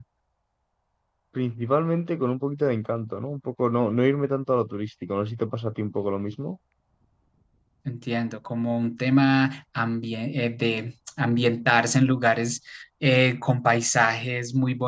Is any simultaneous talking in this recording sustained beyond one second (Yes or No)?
No